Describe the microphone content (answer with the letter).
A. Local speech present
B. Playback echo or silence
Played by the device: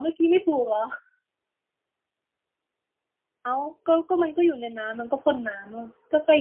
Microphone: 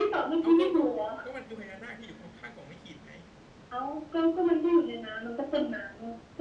A